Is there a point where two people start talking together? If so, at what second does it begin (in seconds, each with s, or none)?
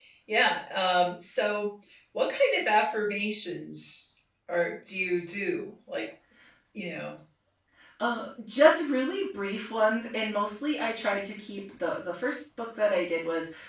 none